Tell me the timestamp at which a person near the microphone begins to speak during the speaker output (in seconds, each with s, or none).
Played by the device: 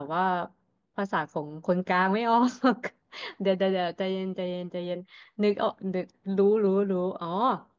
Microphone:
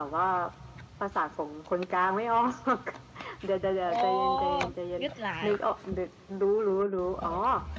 3.8 s